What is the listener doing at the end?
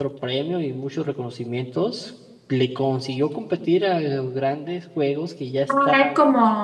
taking over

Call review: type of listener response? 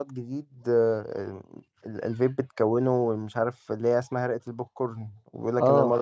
taking over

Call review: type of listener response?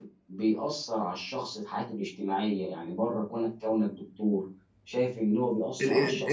taking over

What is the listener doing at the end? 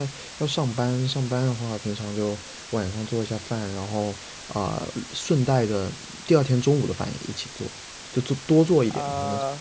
taking over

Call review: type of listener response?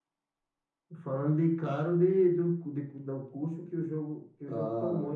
taking over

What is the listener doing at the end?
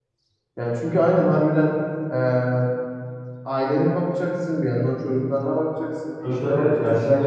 taking over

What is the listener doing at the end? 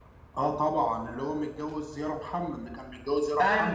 taking over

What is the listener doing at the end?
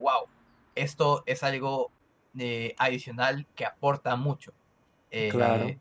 listening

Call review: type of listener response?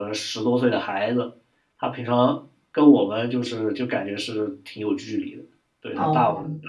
listening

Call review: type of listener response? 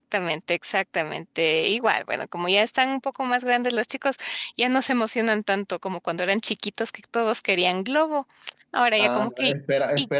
taking over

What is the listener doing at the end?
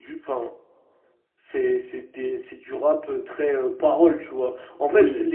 listening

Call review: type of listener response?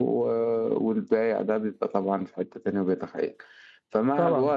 listening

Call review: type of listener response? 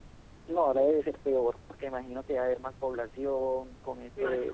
listening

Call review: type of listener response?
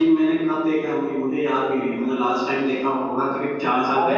taking over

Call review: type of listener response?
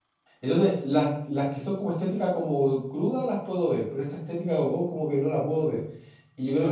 listening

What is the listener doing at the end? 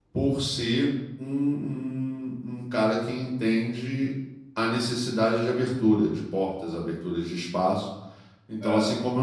listening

